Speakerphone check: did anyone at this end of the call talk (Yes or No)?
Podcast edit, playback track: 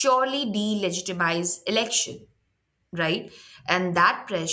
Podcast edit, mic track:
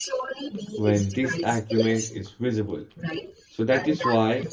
Yes